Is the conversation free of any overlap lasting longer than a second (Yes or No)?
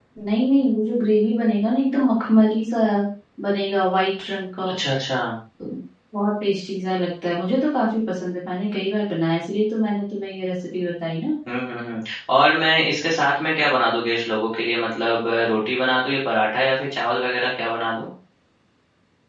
Yes